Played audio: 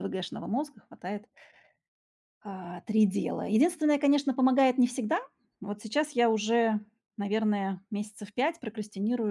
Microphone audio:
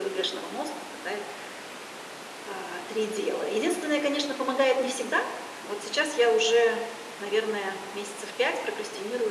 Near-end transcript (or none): none